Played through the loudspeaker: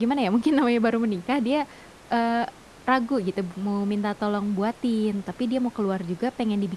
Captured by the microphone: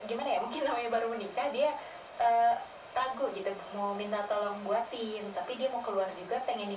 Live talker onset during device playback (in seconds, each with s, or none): none